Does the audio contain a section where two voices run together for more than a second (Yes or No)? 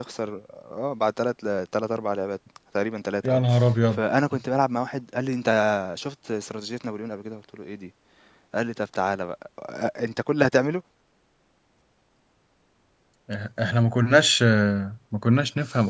No